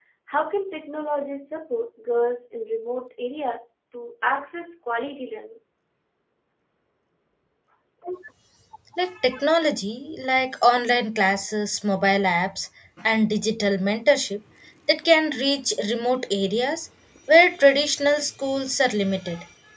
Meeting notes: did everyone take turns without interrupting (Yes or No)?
Yes